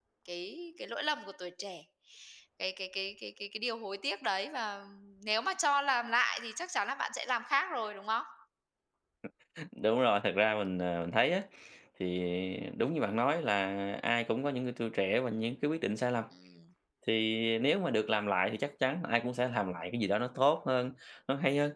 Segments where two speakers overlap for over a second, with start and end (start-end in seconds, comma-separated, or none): none